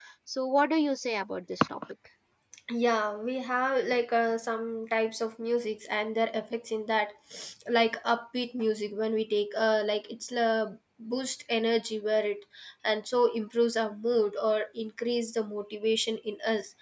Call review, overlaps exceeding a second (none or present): none